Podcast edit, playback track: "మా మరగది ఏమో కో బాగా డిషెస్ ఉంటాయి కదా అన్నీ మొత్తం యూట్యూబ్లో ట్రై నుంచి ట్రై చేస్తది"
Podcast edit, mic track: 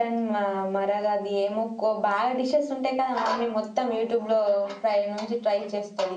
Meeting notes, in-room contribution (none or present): none